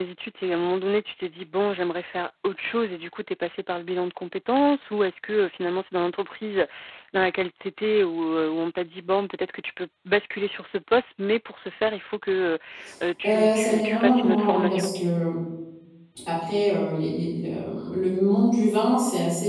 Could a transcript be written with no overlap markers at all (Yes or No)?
No